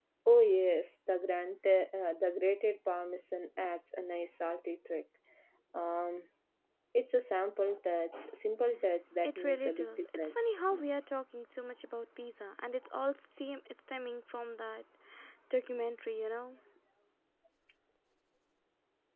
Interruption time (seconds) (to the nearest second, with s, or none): 9 s